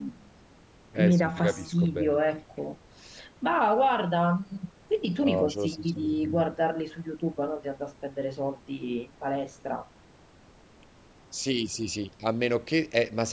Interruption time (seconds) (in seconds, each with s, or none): 1.0 s